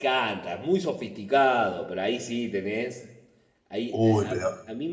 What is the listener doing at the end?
listening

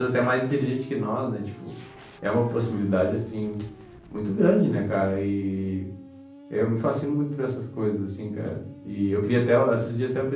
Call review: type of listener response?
listening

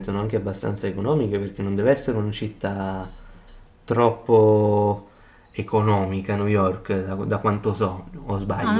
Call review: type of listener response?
taking over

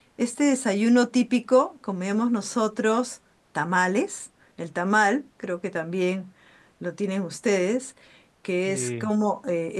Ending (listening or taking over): listening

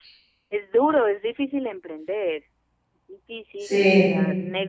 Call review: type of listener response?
listening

